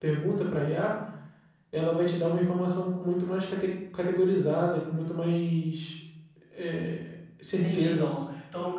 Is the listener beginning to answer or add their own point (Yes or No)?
Yes